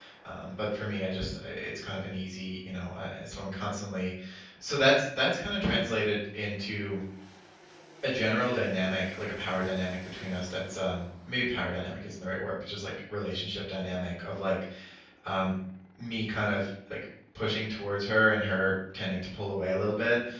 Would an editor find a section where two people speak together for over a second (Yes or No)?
No